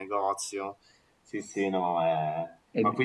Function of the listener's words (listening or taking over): listening